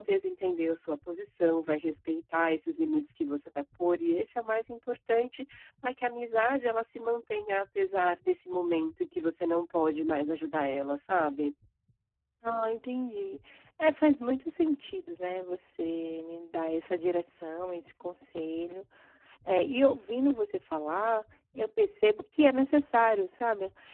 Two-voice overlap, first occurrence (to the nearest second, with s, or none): none